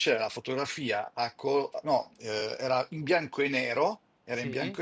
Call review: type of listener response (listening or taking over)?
listening